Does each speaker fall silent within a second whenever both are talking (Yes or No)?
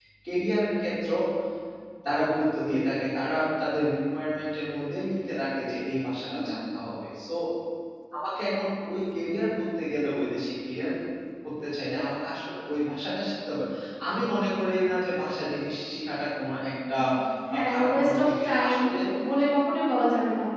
No